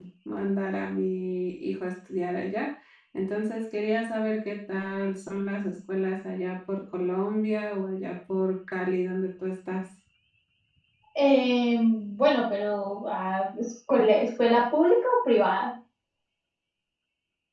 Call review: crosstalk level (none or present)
none